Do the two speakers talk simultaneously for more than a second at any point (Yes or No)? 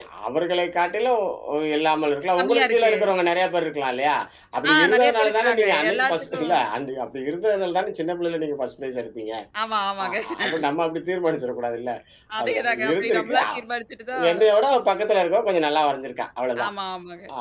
Yes